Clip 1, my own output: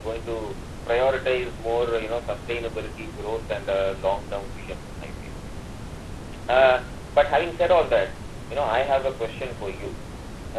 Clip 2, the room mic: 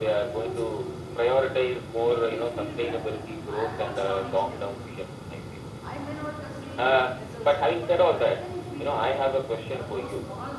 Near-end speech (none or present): present